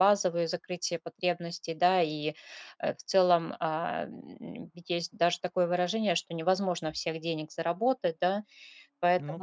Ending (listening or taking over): listening